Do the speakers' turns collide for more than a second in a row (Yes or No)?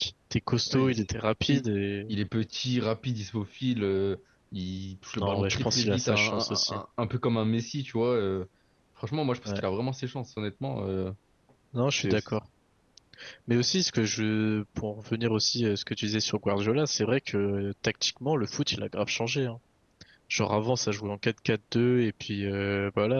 Yes